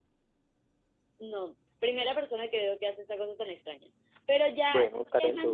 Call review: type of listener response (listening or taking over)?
listening